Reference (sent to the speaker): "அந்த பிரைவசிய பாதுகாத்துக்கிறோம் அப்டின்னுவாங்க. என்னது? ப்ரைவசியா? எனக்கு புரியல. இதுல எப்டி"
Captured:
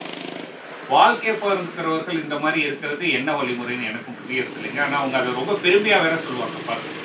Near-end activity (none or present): present